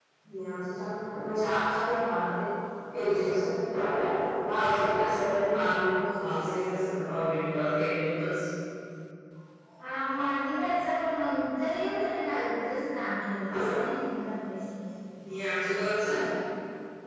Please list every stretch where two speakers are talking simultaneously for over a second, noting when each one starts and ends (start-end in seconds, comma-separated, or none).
none